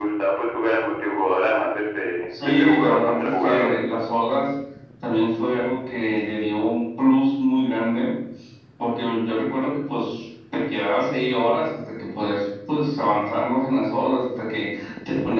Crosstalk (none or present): present